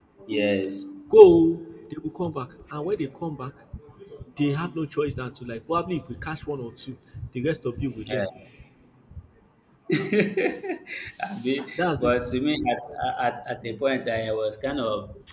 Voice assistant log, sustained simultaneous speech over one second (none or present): none